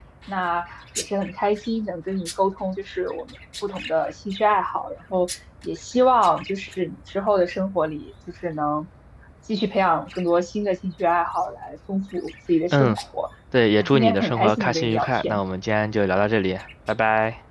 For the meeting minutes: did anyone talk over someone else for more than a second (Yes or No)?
Yes